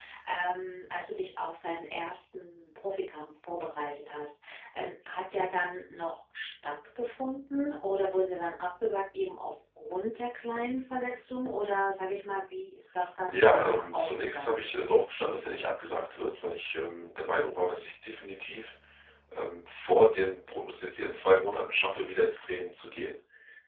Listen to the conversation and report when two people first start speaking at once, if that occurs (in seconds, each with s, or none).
13.2 s